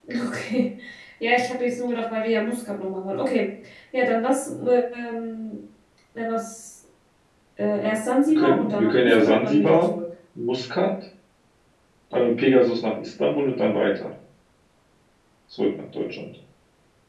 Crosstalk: present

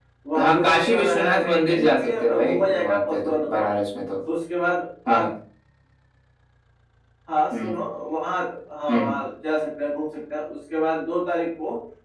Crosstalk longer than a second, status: present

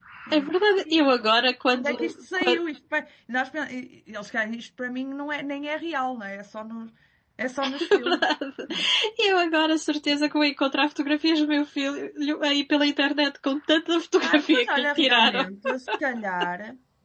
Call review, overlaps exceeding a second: present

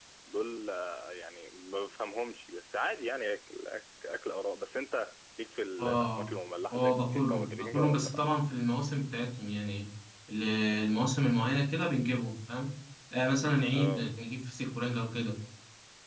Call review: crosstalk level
present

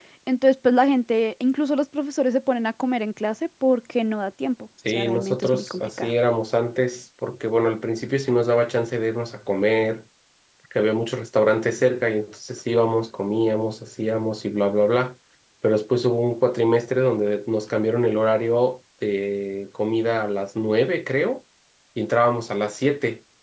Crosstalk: present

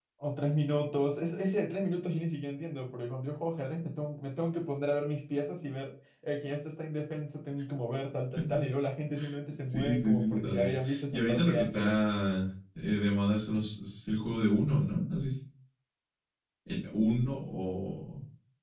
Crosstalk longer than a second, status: present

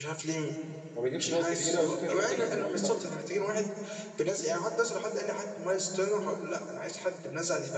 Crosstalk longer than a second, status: present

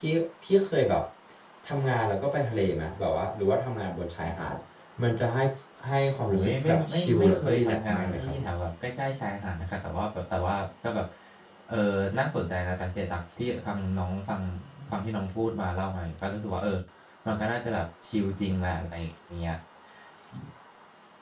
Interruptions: present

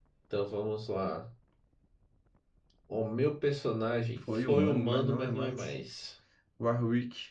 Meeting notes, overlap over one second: present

